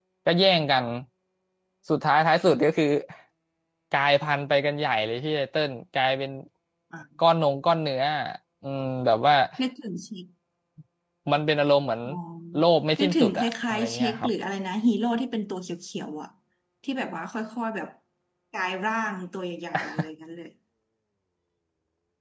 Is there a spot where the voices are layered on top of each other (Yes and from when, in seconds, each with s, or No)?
Yes, from 13.0 s